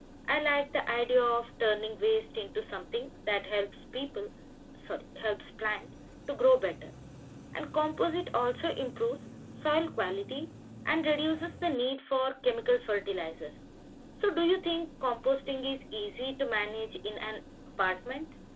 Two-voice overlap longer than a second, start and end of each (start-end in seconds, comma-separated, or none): none